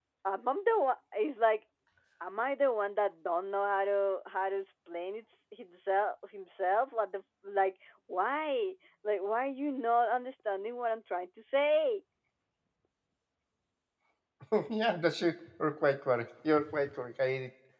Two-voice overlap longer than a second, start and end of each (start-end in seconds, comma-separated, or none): none